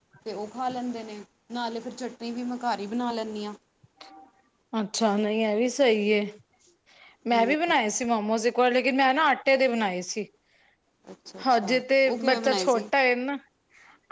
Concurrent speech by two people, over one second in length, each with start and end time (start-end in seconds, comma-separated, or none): 11.5-12.8